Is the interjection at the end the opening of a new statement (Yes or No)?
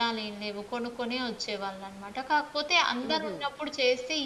No